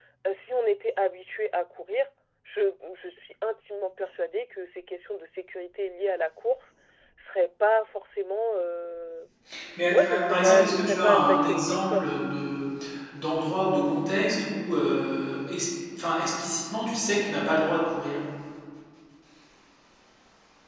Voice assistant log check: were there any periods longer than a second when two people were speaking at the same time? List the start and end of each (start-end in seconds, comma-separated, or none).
9.9-12.0